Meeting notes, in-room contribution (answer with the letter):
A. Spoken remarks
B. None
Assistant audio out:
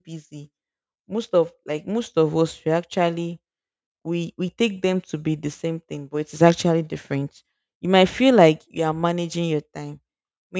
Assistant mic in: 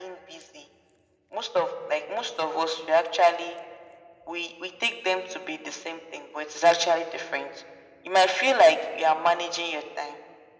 B